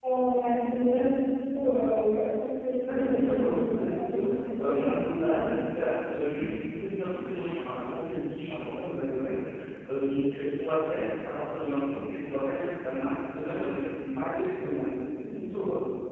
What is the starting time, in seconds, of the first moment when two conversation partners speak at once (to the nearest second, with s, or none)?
3 s